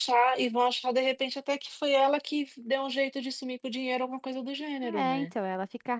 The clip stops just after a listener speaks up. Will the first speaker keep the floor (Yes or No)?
No